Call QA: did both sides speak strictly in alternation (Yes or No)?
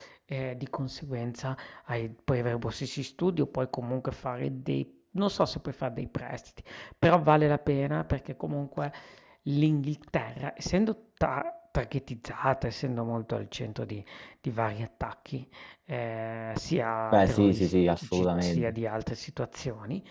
No